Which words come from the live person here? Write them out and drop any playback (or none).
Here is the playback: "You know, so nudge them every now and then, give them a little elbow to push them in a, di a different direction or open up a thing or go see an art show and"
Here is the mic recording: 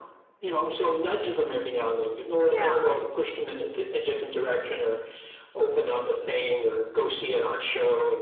Yeah.